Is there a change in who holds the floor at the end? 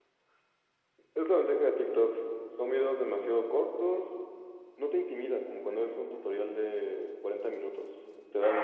Yes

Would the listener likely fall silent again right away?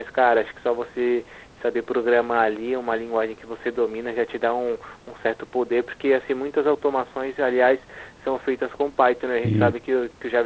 Yes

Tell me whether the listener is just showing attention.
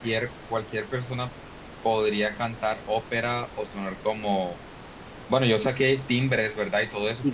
No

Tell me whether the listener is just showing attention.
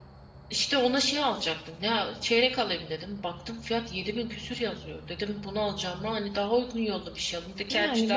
No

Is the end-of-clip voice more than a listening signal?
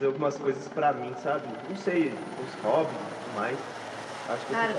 Yes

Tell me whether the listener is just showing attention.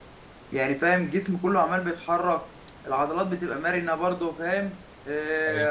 Yes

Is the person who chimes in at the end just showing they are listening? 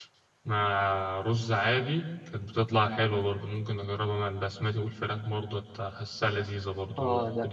No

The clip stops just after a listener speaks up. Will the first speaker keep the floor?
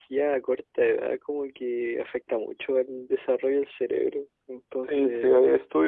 No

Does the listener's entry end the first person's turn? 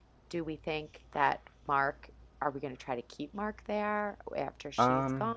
Yes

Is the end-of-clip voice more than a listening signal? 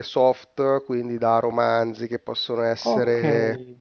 No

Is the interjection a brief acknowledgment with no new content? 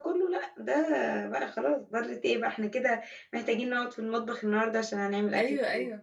No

